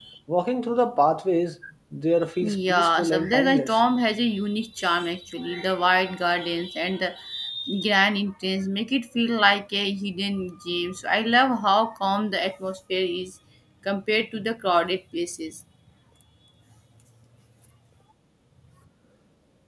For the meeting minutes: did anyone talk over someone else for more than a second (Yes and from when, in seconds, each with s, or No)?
Yes, from 2.4 s